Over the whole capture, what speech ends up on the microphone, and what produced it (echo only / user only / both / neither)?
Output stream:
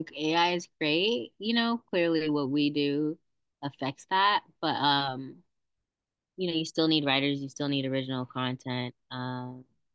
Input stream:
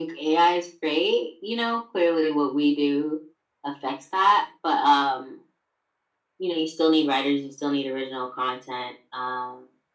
echo only